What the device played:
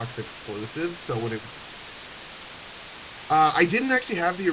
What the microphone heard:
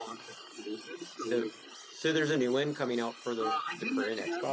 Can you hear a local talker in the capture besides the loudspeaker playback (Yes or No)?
Yes